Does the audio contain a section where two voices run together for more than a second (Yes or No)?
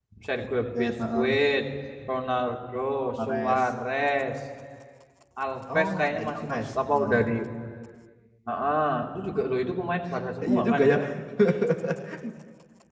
Yes